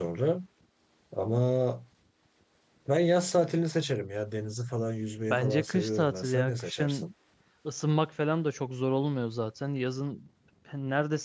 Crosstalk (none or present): present